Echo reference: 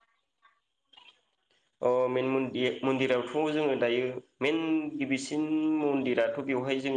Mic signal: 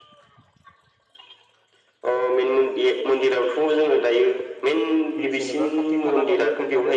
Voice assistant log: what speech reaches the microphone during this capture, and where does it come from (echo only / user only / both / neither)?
both